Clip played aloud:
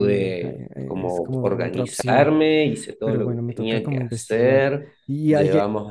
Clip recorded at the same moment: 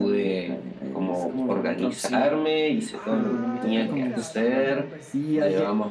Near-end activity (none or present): present